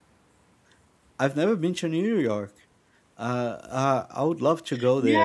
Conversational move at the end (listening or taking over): taking over